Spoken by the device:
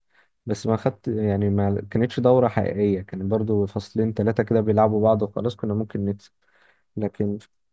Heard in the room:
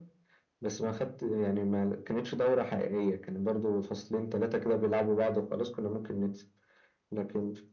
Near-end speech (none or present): none